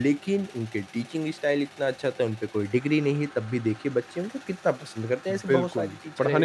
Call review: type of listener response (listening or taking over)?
taking over